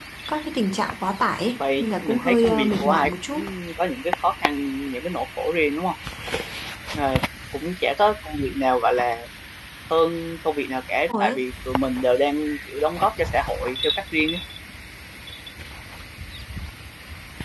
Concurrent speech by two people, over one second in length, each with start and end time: 1.8-3.5

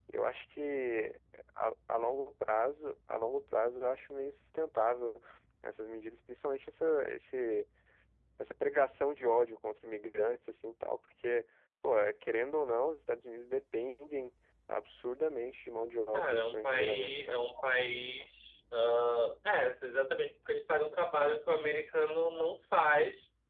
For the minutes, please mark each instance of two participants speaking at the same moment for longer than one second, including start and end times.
16.1-17.4

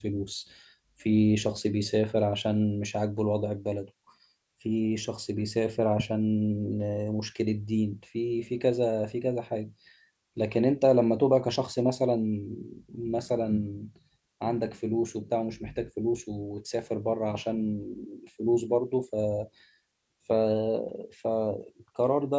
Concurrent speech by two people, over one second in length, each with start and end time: none

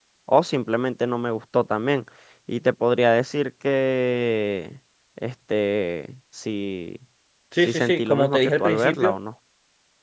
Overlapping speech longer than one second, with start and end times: 7.6-9.2

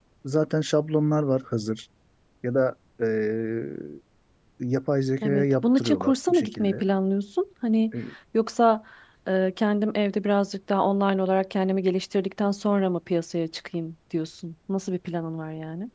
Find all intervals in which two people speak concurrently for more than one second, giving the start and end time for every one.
5.2-6.8

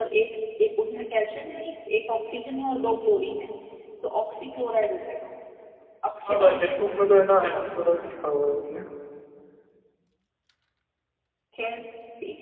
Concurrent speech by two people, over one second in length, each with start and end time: 6.3-8.1

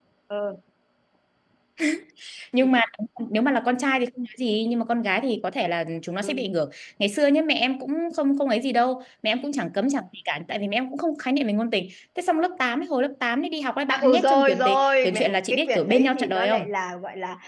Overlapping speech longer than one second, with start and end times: 13.9-16.6

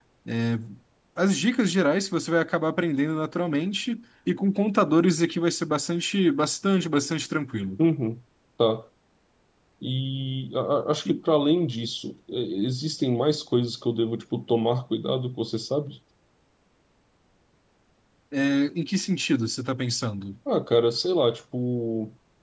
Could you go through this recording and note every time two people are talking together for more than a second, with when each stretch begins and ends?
none

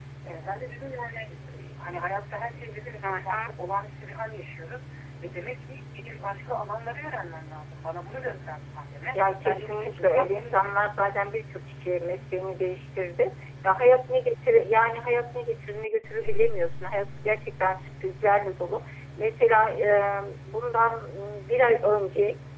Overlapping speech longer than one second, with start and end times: 9.1-10.9

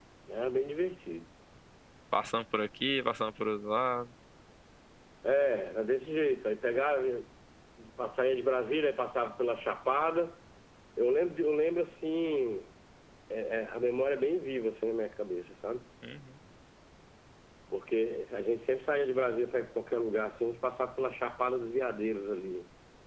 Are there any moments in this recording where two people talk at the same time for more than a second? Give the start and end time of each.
none

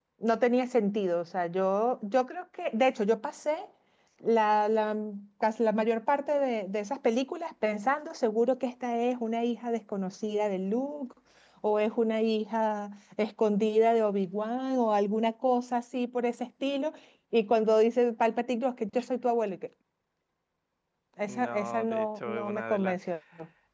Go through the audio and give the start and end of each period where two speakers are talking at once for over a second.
21.2-23.0

